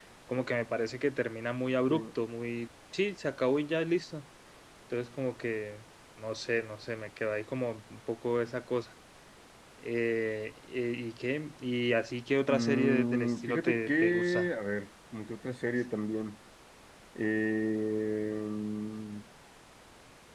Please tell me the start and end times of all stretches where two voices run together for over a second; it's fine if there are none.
12.5-14.4

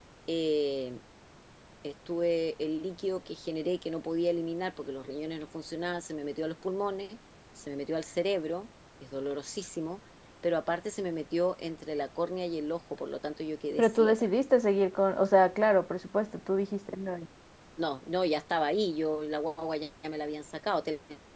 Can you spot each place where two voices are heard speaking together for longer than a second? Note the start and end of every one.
none

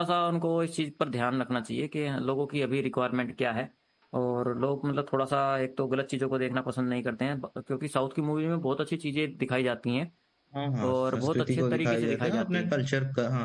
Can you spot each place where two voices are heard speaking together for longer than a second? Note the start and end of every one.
10.8-12.7

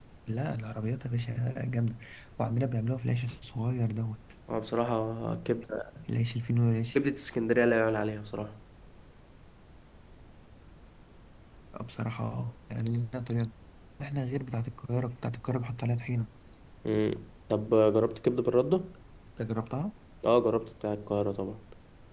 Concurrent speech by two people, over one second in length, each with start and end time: none

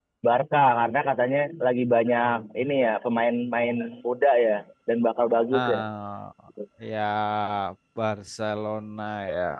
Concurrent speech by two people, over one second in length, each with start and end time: none

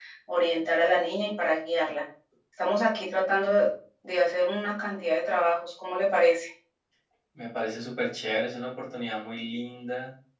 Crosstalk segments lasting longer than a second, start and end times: none

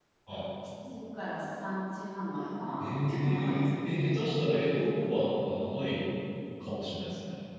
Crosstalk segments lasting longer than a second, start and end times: 2.8-4.0

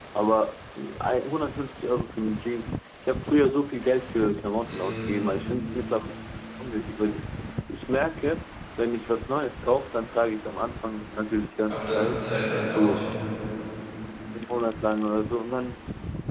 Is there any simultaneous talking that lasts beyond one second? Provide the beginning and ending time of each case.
none

